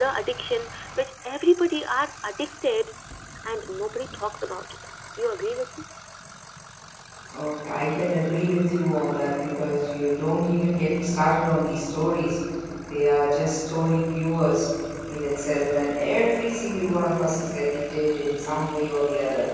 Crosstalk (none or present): none